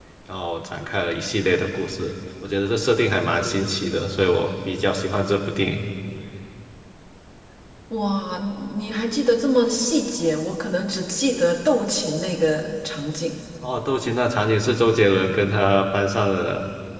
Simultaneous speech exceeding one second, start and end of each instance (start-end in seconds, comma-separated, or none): none